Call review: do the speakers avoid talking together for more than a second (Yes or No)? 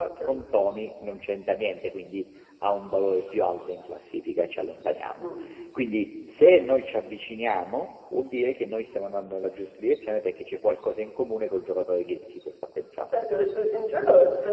Yes